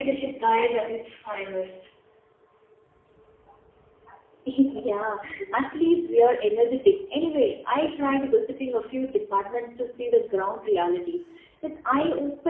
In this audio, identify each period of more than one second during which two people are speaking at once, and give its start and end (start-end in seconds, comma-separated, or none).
none